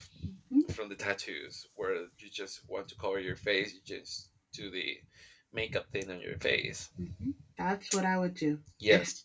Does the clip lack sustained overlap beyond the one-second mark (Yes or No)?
Yes